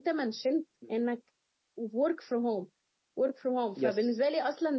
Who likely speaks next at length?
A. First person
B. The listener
A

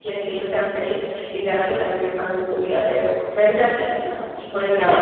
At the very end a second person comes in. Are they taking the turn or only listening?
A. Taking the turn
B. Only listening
B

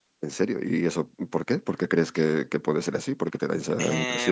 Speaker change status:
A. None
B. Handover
B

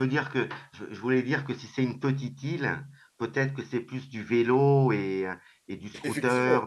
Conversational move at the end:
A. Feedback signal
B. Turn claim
B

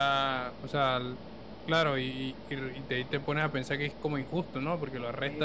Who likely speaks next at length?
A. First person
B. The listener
B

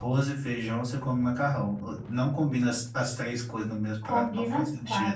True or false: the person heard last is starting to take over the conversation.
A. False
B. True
B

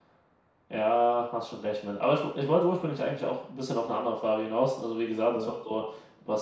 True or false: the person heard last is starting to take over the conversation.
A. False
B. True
A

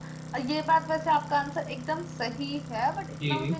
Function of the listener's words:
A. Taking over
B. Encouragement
B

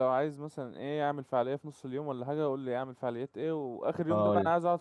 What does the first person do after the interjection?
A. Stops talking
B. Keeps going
B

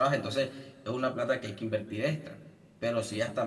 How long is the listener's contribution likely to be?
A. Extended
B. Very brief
B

